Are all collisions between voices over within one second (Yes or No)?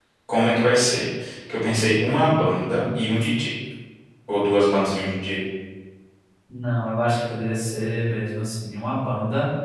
Yes